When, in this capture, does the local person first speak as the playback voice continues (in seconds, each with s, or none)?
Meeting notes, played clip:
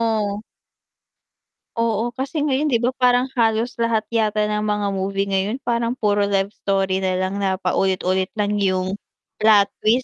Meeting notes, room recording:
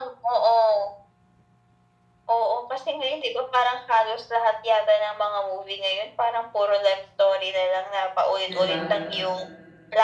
8.4 s